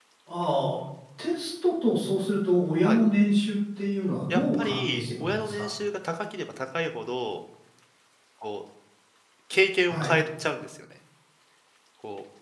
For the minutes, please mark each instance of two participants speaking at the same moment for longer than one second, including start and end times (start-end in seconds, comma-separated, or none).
4.3-5.7